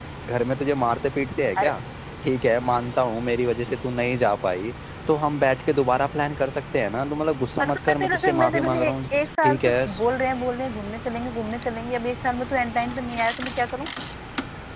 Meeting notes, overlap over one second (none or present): present